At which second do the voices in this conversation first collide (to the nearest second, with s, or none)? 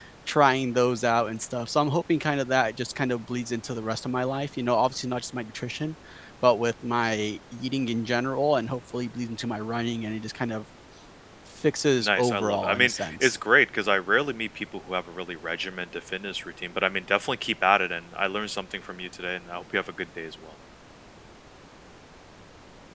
12 s